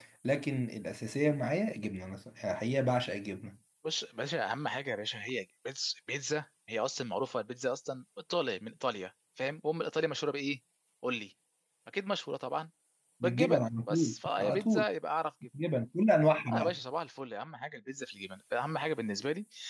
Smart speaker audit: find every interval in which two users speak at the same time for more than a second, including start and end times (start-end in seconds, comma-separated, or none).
13.2-14.8